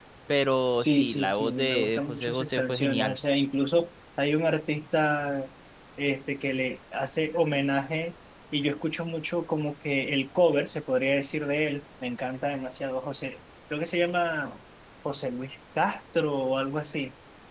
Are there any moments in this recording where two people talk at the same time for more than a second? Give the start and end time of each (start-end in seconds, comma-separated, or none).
0.8-3.2